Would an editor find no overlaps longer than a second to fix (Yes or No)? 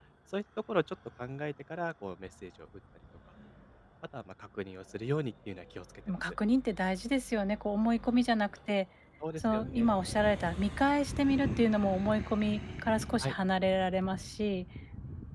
Yes